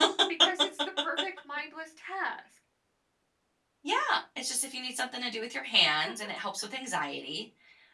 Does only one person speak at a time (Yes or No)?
Yes